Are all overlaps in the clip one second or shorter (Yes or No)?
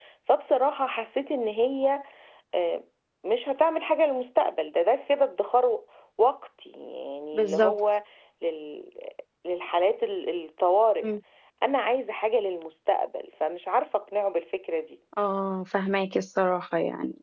Yes